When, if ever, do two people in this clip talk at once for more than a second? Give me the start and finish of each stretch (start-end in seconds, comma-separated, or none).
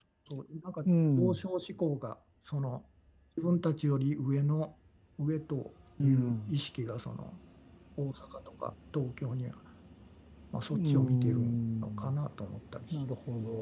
10.7-12.1